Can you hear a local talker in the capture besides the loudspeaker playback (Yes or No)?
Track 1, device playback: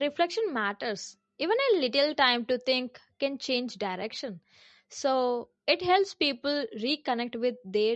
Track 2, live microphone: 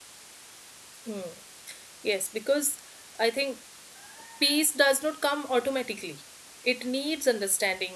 Yes